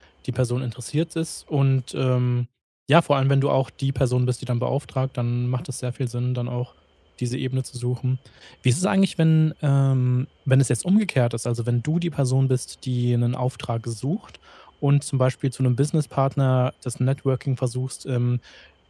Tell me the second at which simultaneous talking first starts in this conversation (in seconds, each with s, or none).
none